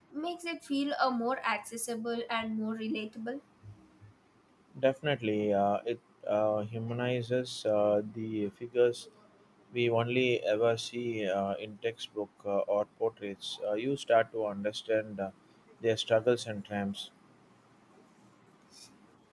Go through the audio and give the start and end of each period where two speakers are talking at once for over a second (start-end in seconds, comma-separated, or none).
none